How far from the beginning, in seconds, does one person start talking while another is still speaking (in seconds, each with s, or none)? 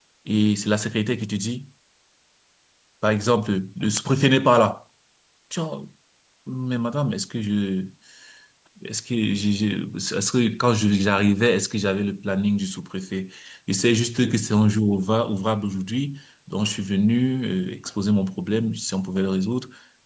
none